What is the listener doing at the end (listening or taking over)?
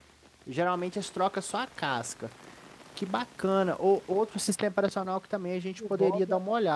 listening